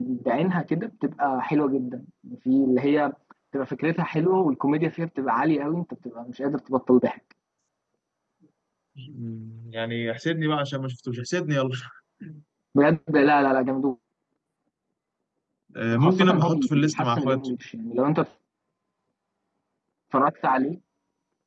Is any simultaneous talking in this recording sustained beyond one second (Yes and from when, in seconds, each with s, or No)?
Yes, from 15.9 s